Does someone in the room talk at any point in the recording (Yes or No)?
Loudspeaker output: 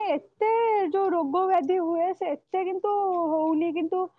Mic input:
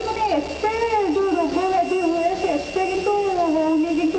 No